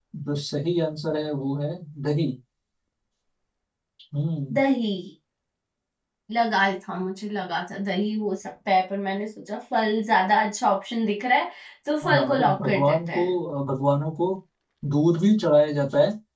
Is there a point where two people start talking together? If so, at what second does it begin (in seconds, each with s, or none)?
12.0 s